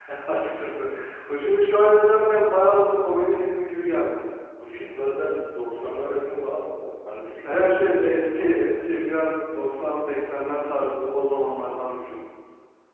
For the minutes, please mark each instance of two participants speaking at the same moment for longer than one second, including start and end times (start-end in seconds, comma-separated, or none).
7.4-8.8